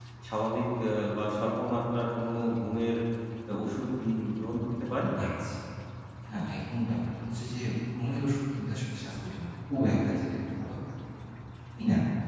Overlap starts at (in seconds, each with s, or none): none